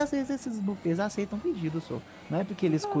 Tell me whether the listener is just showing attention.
Yes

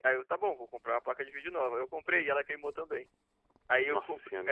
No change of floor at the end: Yes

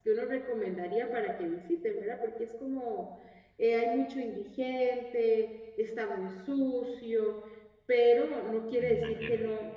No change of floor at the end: Yes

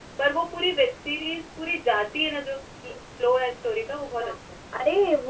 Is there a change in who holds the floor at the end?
Yes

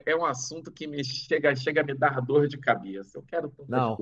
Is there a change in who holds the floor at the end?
Yes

